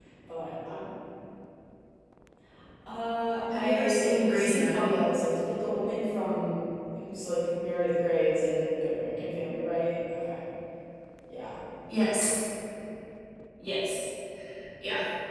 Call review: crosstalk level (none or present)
present